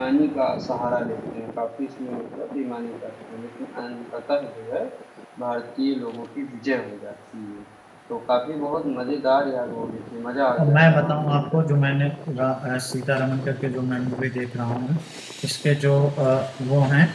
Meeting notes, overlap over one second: present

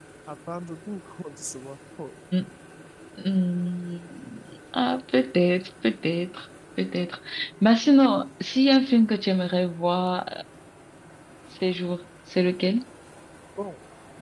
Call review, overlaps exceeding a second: none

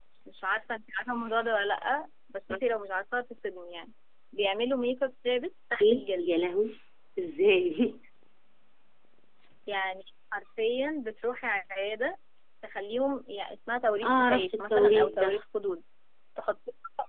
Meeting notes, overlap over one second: present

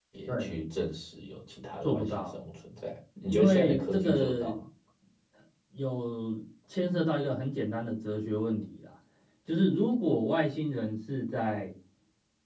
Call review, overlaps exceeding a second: present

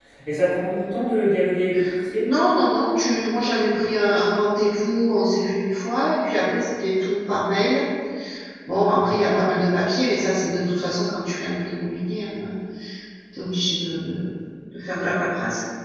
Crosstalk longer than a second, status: none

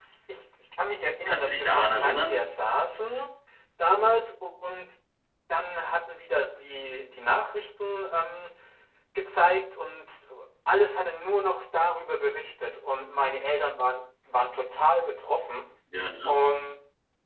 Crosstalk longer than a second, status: present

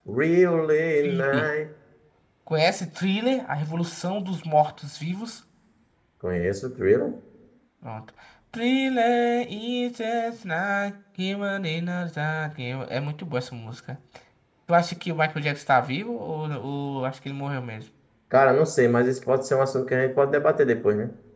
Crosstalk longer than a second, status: none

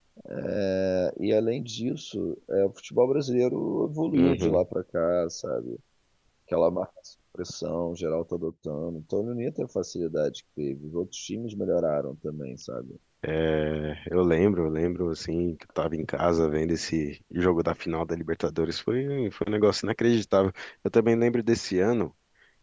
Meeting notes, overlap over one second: none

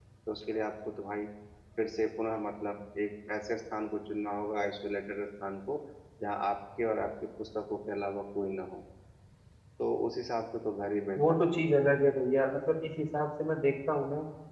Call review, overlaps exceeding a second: none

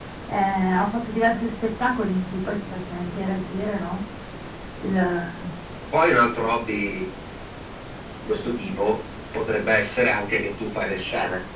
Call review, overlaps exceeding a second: none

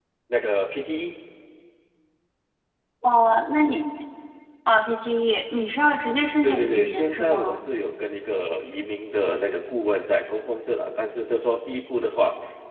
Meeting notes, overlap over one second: present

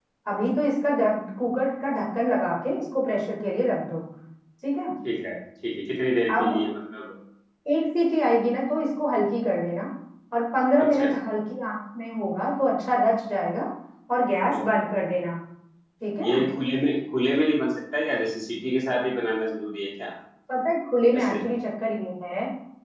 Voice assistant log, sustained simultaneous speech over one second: none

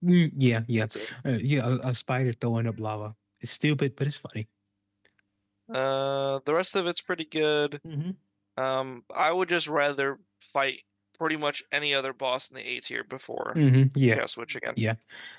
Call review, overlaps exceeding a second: none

